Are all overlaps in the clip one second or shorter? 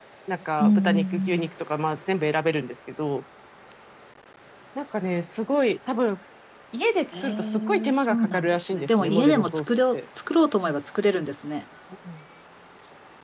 No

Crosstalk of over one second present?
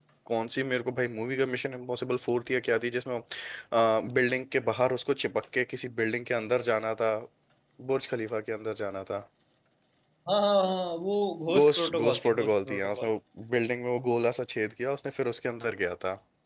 Yes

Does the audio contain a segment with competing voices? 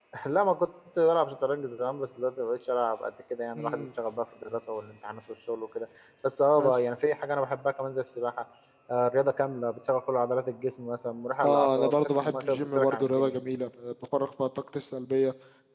Yes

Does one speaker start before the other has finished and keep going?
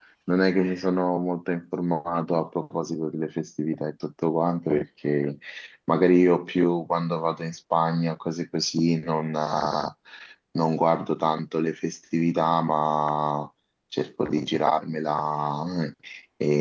No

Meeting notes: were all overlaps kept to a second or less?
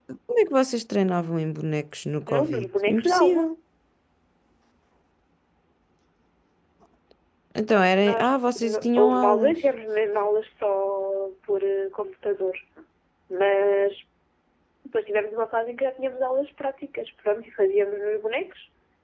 No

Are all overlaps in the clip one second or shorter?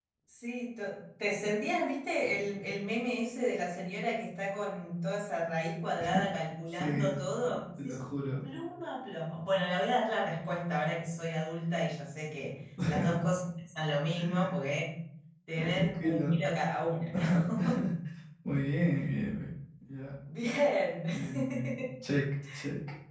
No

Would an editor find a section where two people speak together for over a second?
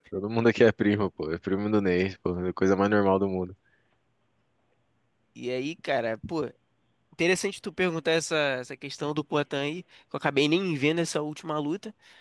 No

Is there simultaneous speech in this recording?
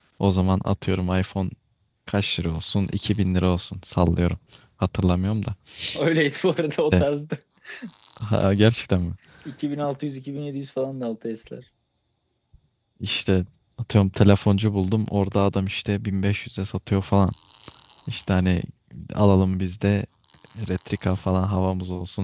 No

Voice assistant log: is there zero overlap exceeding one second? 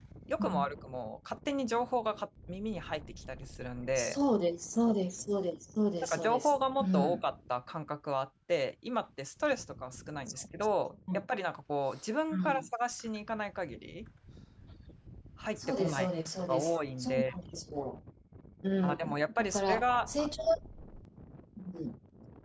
No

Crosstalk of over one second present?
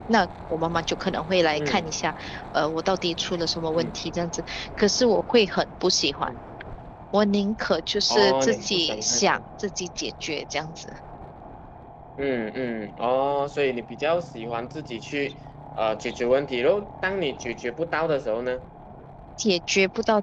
Yes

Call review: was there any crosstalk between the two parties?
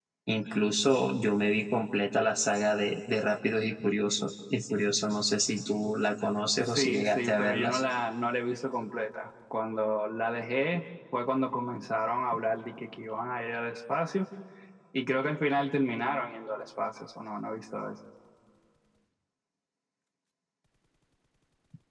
Yes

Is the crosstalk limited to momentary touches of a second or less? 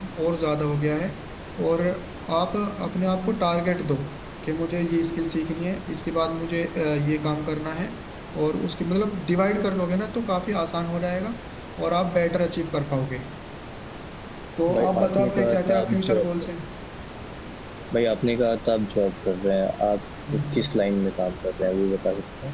No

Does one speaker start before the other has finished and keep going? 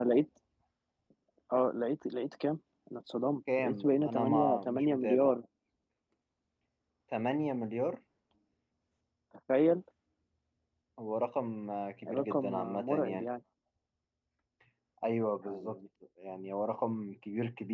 Yes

